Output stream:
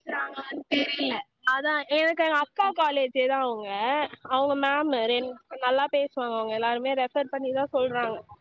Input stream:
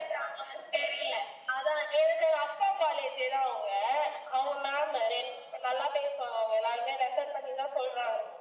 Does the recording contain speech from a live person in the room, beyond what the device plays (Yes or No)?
No